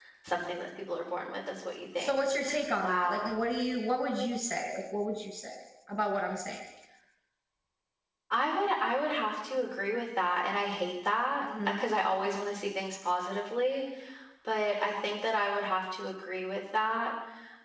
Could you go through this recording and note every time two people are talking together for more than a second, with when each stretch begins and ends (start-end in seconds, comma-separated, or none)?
none